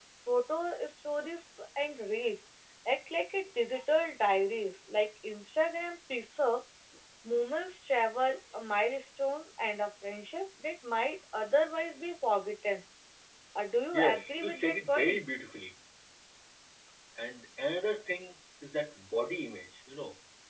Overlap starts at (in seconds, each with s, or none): 13.9 s